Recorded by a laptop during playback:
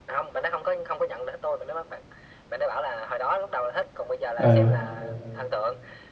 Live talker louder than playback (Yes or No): Yes